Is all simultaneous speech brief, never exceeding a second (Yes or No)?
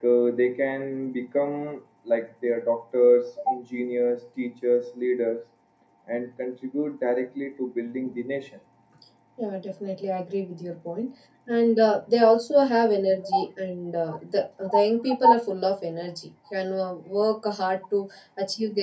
Yes